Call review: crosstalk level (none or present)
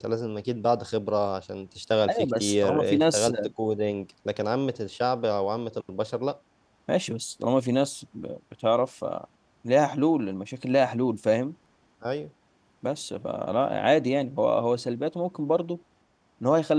present